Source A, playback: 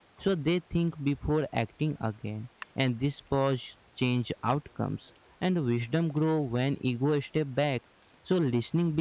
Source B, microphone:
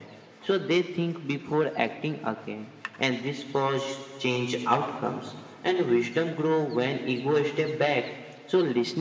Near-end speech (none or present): none